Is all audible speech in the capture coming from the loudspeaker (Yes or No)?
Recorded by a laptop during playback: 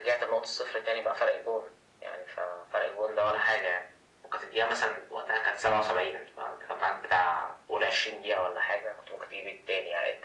Yes